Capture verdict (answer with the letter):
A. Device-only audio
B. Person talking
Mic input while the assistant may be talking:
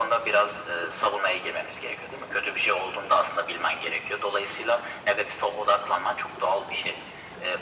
A